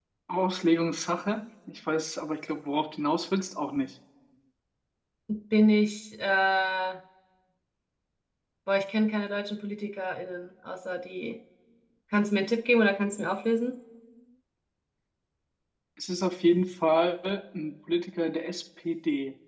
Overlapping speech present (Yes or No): No